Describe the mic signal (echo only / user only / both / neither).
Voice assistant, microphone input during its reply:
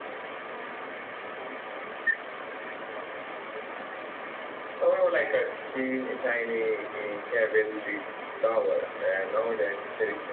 echo only